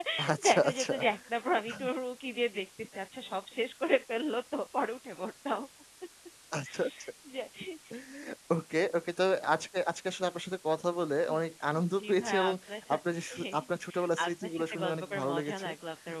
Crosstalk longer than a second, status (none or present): present